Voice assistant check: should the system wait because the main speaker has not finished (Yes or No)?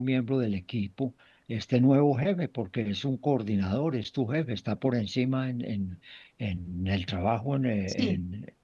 Yes